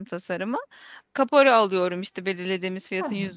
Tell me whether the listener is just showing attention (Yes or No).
Yes